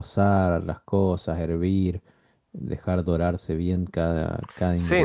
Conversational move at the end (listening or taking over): taking over